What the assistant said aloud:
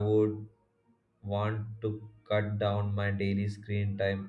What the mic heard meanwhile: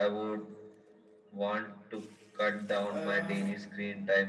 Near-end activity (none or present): present